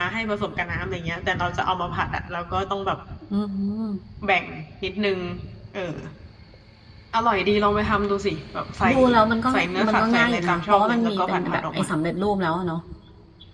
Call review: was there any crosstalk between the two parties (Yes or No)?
Yes